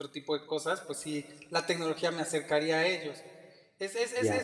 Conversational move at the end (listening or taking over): listening